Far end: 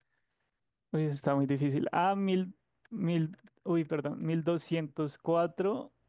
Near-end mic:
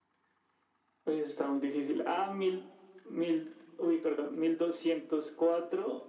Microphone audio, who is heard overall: echo only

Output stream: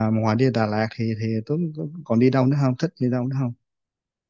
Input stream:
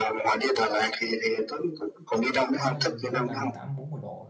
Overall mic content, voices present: both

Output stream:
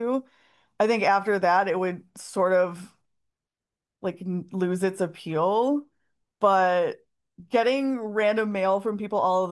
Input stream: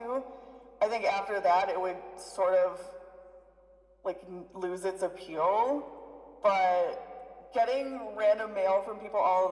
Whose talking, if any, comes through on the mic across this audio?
echo only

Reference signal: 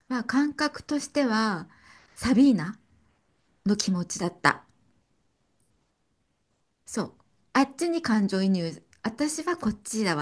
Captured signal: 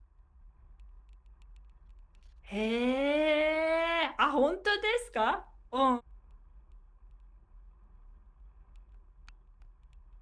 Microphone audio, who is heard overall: user only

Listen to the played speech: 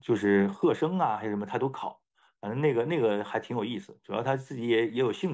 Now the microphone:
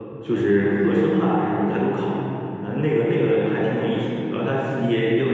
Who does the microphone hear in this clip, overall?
echo only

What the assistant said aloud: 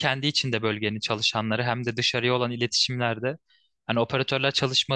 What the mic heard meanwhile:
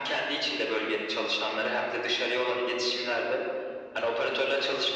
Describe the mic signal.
echo only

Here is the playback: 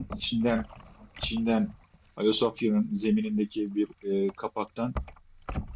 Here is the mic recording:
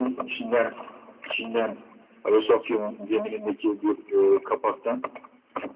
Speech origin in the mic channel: echo only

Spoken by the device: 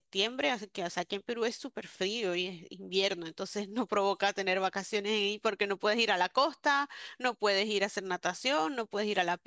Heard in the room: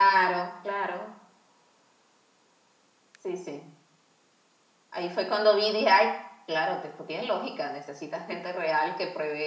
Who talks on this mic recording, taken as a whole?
user only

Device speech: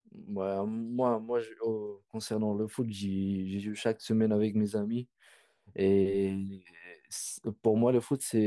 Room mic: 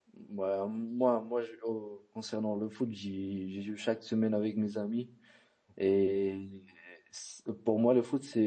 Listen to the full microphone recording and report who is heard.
echo only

